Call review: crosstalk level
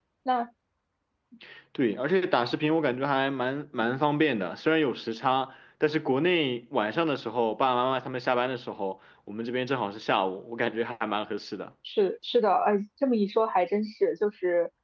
none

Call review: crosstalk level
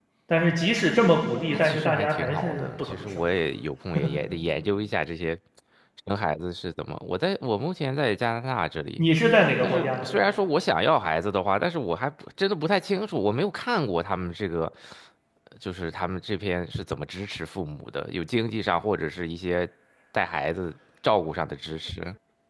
present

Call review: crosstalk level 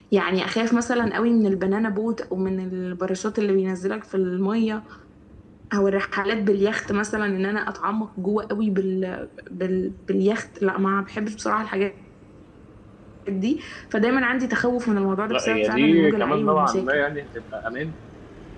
present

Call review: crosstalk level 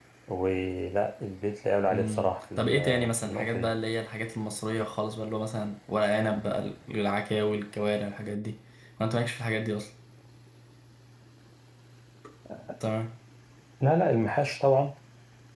present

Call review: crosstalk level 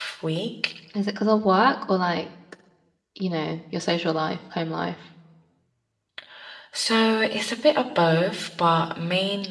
none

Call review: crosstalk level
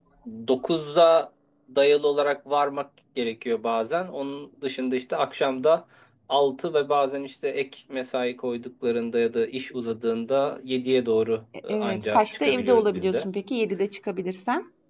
present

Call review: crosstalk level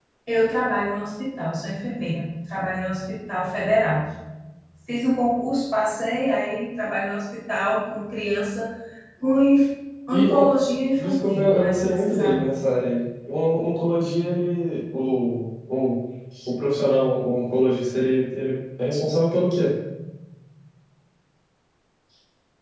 present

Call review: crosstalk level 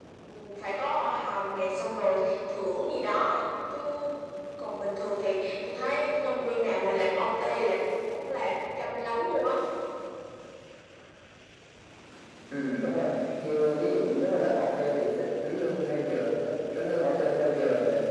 none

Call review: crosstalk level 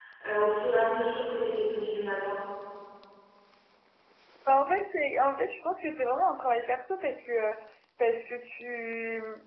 none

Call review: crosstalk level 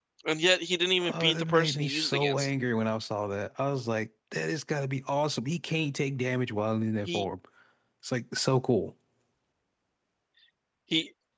present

